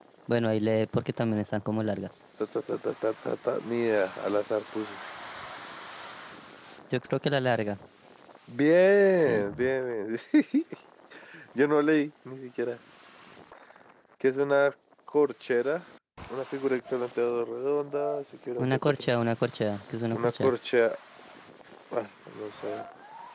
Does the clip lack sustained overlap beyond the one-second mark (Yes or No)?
Yes